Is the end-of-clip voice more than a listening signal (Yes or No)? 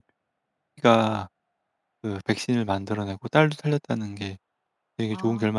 Yes